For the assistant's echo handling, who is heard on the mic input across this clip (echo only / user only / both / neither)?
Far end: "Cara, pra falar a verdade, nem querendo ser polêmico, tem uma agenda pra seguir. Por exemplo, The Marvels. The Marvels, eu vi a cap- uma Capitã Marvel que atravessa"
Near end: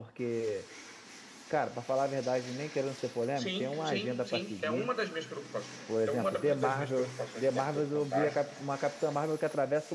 both